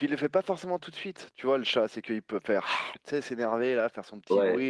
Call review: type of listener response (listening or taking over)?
taking over